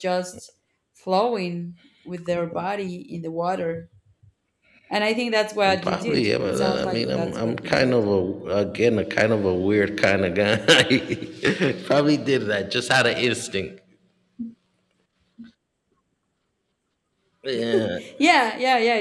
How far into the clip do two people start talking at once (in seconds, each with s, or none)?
5.6 s